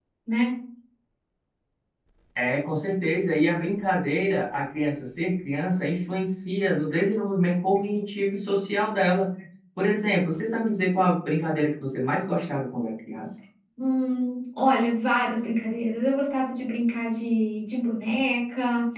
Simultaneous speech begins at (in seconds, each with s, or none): none